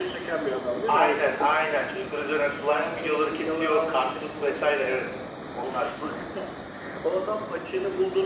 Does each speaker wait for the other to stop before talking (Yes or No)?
No